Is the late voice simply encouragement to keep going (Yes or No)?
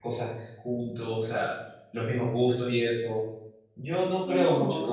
Yes